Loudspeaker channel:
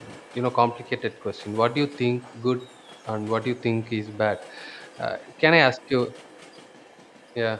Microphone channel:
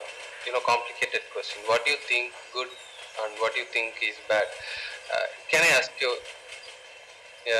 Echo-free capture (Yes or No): No